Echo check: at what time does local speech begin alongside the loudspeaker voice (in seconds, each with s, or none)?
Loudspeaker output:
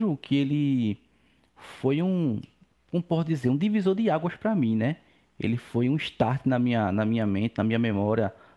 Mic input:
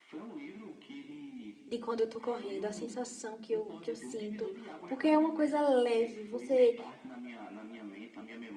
1.7 s